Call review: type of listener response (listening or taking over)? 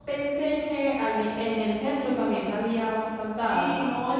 taking over